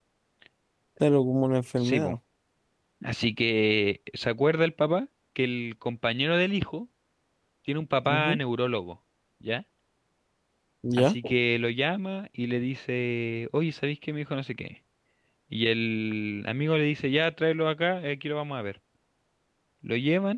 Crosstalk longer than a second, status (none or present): none